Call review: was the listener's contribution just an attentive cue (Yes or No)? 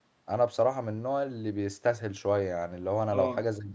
Yes